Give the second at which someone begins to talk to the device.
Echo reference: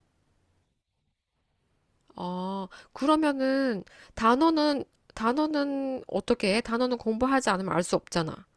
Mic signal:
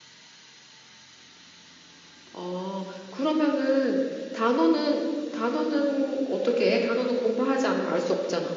none

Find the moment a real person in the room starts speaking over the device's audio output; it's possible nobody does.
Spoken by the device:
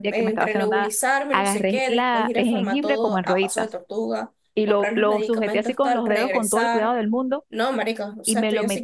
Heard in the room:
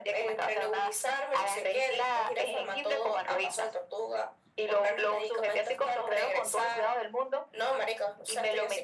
none

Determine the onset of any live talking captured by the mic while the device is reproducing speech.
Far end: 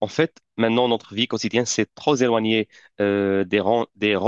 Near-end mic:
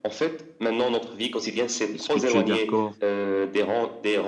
2 s

